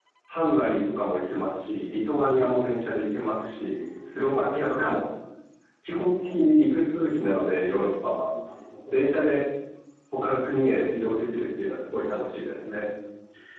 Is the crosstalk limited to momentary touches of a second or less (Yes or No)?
No